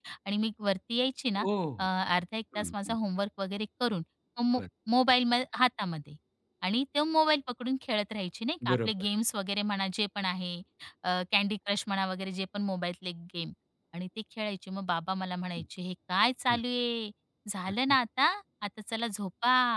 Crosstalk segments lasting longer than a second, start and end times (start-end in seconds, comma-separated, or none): none